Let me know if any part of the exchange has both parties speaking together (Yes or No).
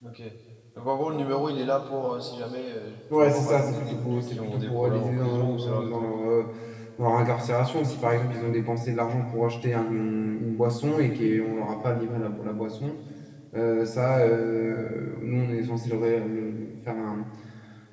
Yes